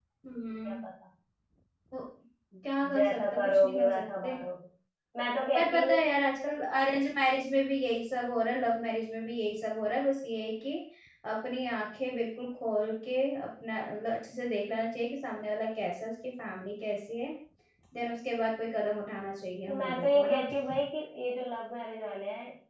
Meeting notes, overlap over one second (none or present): present